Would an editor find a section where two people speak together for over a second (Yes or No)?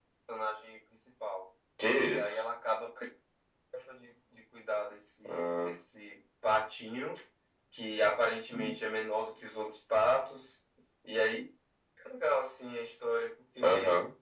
No